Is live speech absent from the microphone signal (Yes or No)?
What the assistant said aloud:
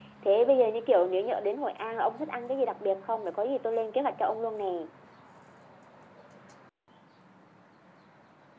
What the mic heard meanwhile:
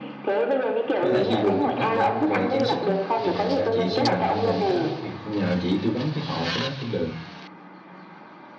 No